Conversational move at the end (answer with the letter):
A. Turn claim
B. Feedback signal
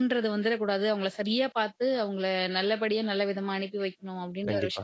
A